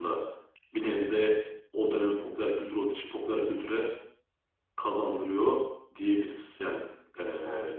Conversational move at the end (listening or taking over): listening